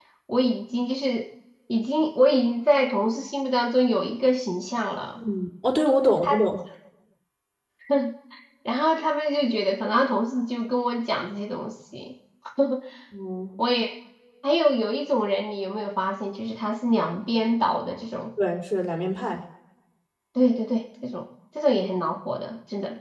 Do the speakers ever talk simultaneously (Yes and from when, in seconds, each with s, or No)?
No